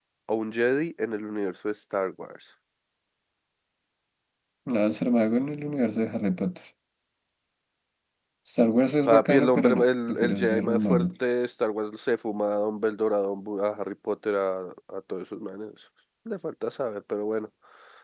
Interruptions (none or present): present